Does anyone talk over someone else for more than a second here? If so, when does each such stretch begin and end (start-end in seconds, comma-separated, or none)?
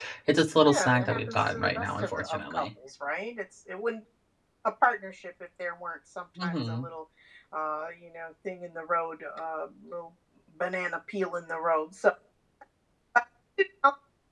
0.7-2.7